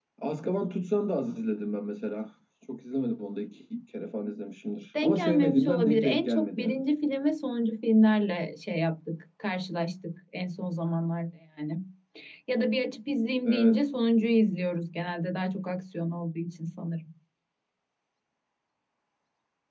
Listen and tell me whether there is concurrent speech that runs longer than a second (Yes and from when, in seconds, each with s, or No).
Yes, from 5.0 s